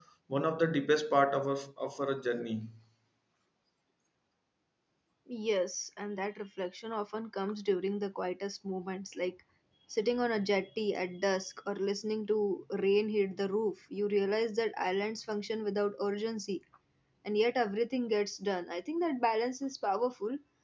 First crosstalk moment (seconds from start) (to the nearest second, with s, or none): none